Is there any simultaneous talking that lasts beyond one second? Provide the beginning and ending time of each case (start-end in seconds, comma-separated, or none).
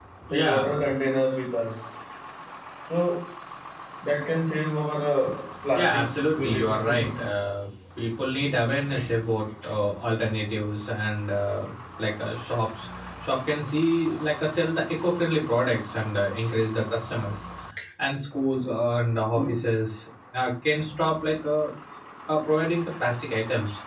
5.7-7.2